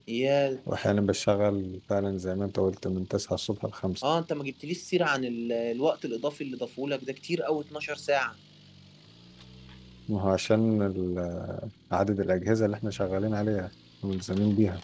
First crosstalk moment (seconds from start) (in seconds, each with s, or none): none